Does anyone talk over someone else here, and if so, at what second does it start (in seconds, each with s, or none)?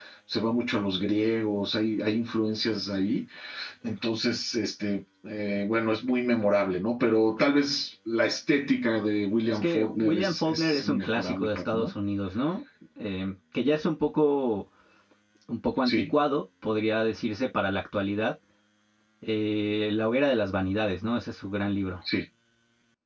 9.4 s